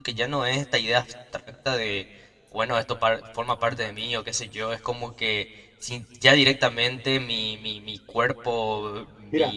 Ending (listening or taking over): taking over